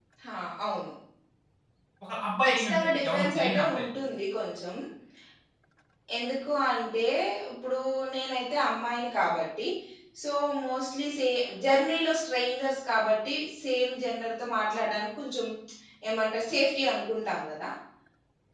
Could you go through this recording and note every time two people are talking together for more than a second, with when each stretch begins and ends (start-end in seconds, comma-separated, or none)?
2.4-3.8